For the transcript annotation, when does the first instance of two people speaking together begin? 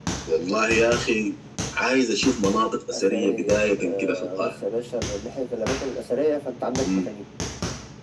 2.9 s

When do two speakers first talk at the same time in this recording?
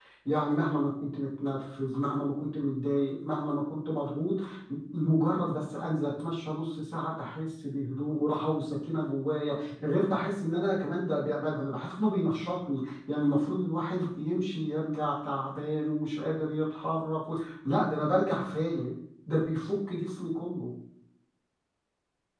none

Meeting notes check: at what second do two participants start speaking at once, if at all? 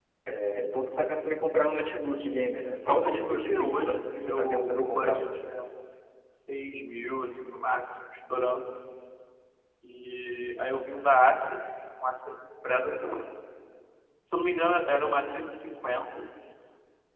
2.9 s

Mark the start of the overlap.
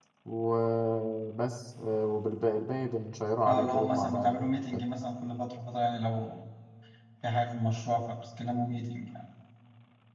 3.5 s

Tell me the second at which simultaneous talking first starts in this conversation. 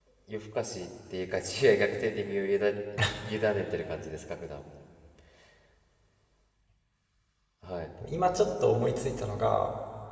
none

